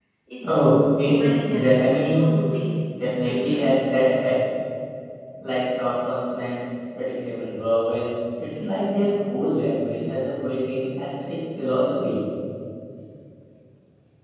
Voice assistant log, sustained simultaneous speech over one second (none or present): present